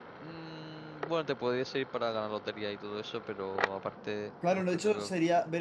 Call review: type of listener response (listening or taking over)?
taking over